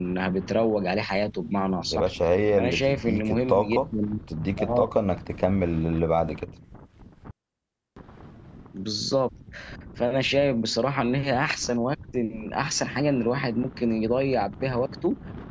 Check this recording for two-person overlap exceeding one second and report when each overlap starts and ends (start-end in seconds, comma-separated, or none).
2.6-3.8